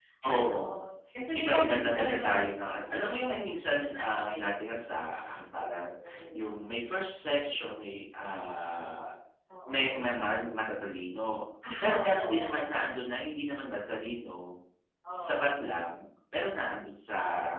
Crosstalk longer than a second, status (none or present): present